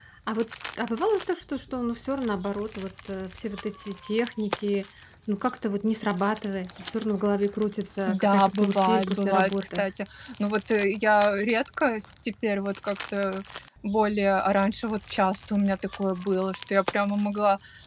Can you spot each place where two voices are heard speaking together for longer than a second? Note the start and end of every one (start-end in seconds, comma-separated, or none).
8.1-9.8